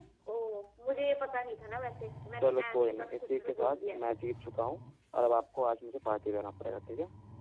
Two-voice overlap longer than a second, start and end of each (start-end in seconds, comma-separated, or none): 2.4-4.0